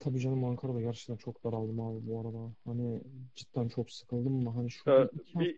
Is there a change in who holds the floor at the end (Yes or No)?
No